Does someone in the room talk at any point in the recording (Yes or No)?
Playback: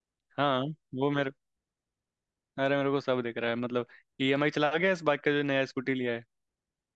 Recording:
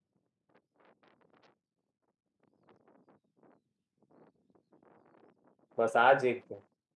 Yes